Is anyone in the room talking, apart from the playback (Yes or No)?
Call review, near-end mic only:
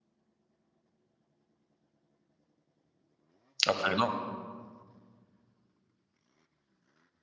Yes